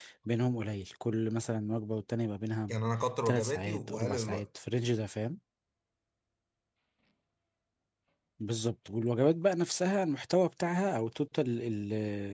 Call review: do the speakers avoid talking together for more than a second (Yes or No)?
No